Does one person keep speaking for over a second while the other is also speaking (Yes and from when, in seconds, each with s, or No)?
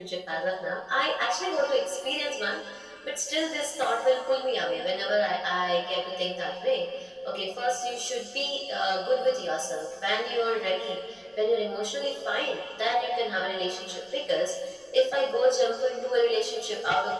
No